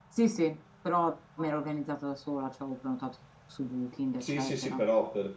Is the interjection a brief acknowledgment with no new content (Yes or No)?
No